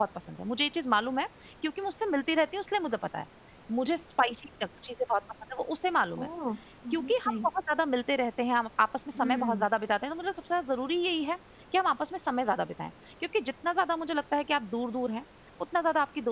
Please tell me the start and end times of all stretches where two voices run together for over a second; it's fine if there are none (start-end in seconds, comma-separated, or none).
none